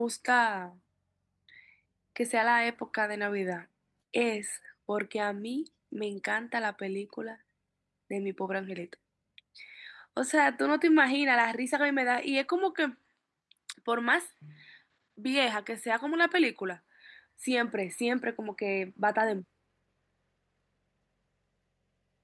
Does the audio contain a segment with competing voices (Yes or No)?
No